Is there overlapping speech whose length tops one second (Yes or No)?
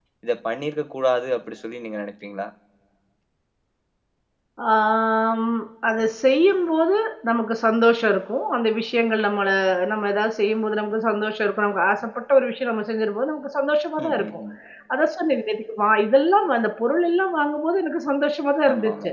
No